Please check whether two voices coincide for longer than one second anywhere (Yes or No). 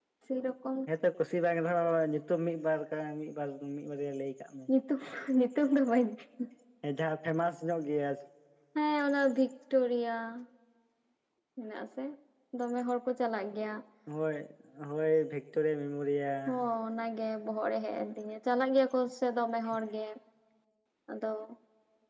No